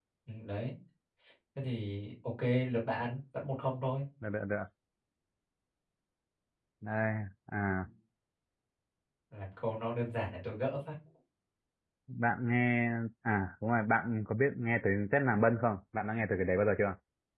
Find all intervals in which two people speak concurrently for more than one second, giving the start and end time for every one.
none

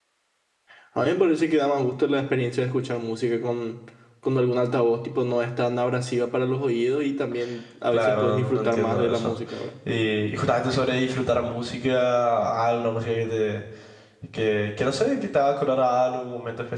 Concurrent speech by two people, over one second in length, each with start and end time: 7.9-9.3

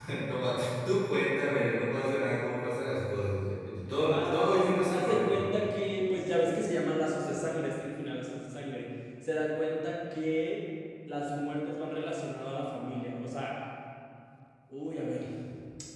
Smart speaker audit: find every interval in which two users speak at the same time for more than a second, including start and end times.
4.1-5.4

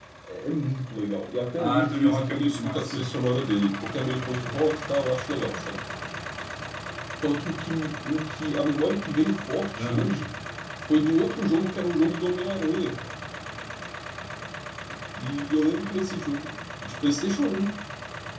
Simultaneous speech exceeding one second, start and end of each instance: 1.6-3.0

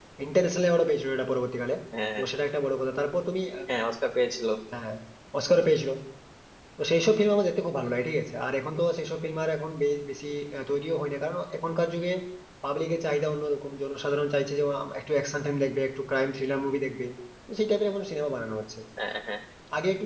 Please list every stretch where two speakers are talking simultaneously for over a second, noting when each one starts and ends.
none

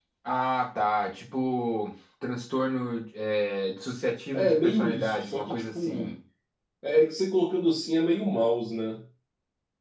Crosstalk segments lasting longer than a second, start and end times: 4.3-6.1

